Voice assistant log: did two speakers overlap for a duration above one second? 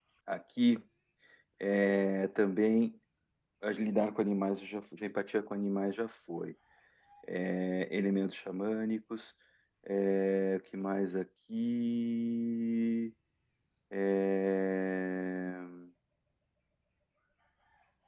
No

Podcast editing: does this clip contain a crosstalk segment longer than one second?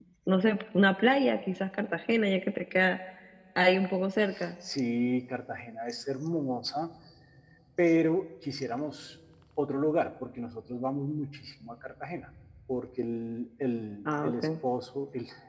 No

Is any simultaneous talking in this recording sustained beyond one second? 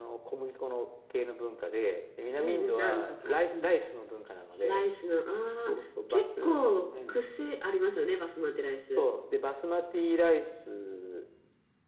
Yes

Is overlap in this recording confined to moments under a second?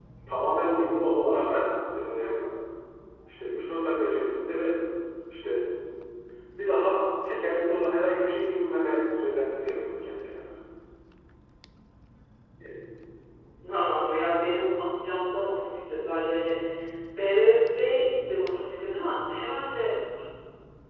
Yes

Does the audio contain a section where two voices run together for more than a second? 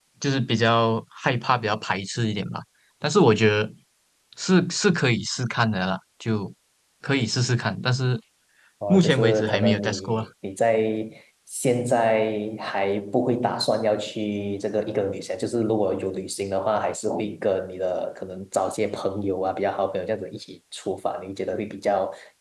Yes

